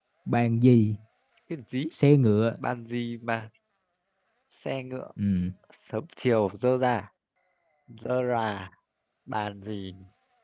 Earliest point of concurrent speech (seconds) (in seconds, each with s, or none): none